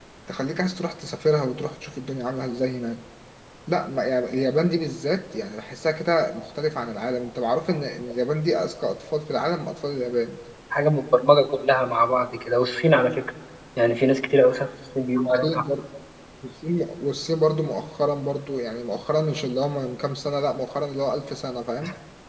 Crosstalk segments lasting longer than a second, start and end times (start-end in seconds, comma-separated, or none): none